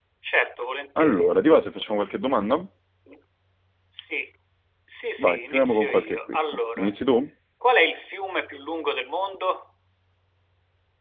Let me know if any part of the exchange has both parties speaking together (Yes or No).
Yes